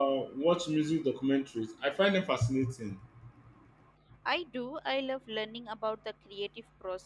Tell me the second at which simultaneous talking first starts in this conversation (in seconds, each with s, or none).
none